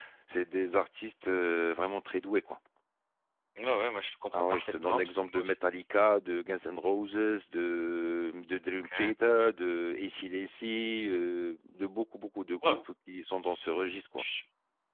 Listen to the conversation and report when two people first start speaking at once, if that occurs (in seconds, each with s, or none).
4.3 s